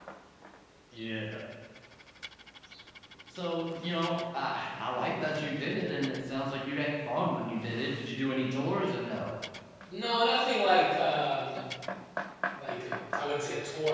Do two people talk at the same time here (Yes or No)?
No